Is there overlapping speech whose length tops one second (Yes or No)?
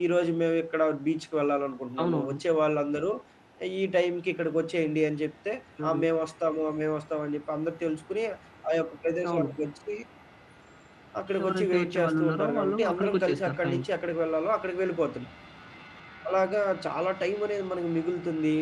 Yes